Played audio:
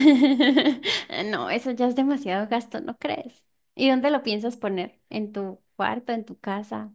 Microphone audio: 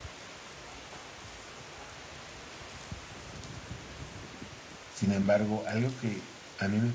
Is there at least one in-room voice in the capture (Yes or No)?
Yes